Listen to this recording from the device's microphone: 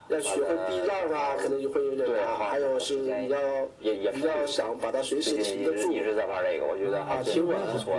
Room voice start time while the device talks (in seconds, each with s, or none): 6.8 s